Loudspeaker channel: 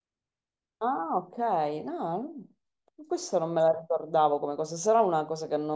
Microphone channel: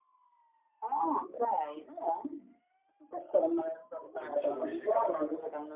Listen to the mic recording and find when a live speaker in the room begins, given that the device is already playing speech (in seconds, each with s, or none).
4.2 s